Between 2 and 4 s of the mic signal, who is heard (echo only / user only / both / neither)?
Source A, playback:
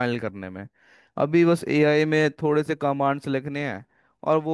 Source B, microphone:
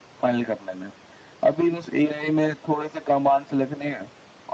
echo only